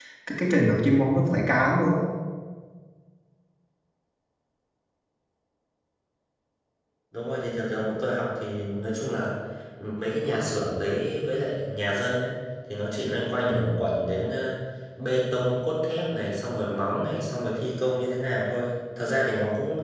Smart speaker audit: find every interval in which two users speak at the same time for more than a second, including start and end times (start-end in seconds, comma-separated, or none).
none